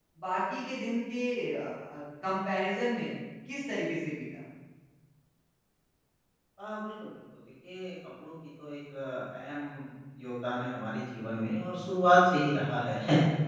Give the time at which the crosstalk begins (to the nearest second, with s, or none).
none